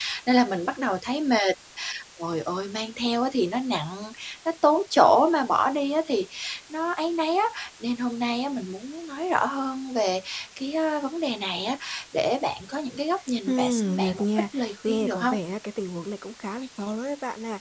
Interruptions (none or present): present